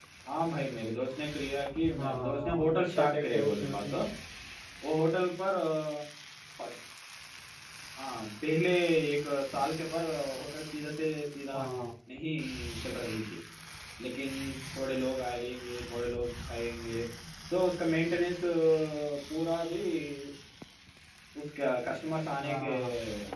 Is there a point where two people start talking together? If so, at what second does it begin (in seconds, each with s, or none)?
2.0 s